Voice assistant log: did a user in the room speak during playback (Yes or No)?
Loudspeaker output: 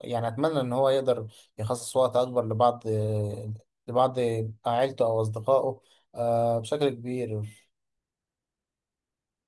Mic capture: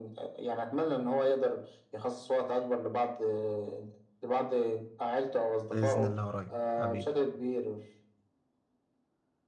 Yes